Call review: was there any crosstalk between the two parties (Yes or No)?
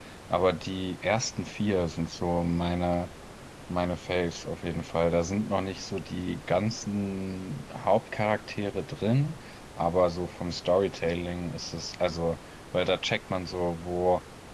No